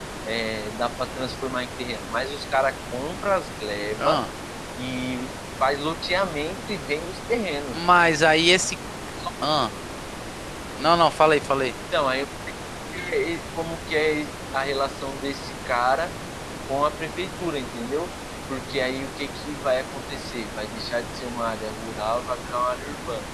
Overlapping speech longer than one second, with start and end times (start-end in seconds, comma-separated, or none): none